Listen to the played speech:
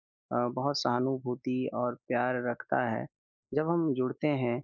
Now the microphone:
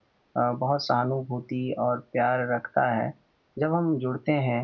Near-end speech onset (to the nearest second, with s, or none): none